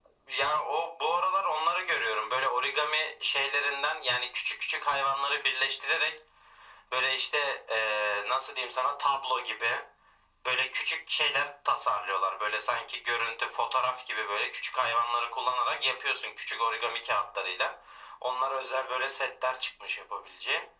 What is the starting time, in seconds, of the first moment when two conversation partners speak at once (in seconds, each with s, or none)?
none